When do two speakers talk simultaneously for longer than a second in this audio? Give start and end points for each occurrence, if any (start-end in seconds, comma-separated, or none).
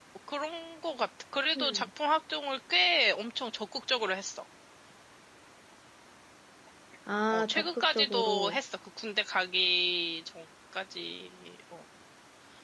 7.3-8.6